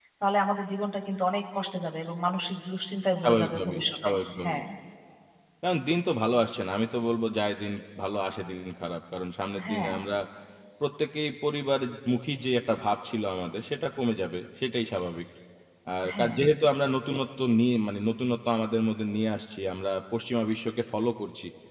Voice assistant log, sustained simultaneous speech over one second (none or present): present